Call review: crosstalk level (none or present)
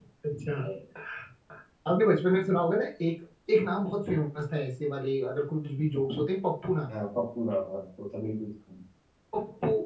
none